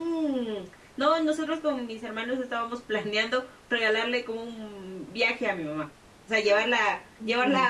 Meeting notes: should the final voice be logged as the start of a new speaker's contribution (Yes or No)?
No